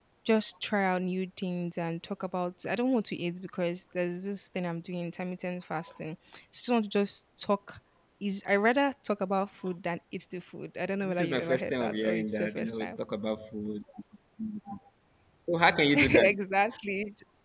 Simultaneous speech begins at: 11 s

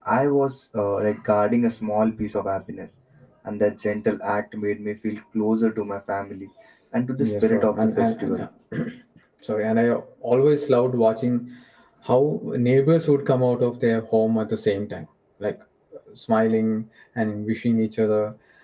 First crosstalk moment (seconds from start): 7 s

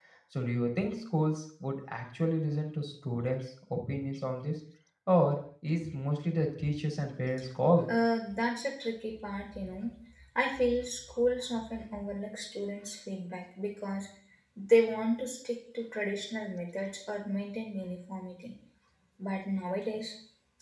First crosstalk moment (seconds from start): none

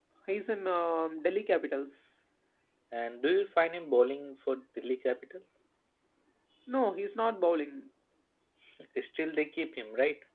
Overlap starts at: none

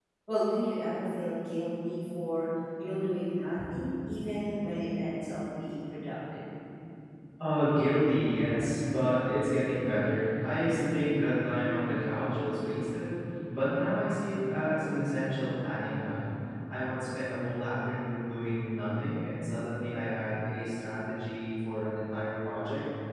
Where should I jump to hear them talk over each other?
none

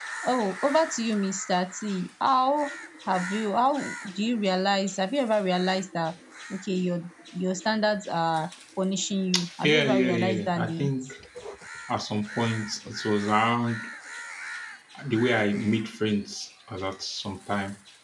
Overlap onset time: 10 s

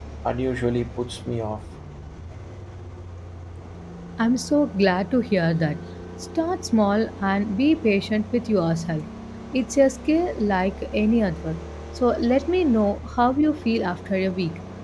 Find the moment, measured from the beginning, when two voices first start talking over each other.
none

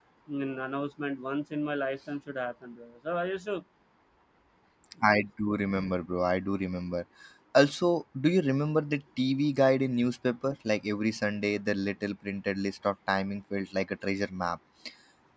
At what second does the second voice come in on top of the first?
none

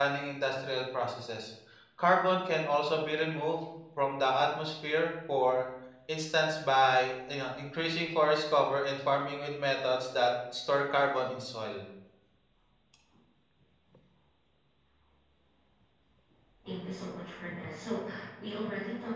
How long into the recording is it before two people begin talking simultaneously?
none

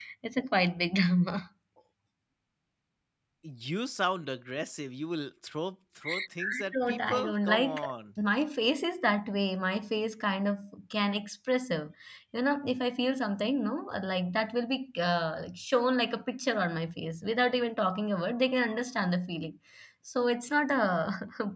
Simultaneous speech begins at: 6 s

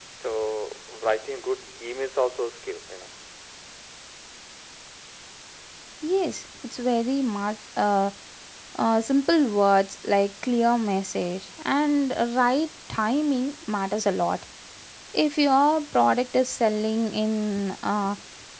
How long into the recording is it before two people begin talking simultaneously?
none

